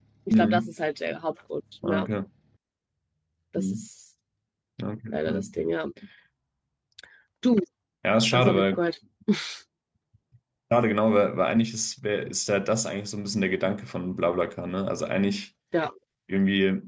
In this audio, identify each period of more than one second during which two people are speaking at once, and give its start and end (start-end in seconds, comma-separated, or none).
none